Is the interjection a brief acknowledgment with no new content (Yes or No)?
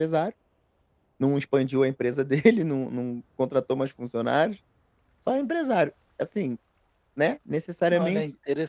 No